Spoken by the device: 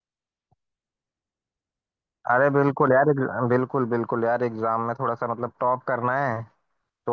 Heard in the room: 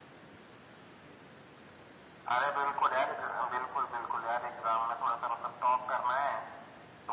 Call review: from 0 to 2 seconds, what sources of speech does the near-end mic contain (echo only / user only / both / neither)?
neither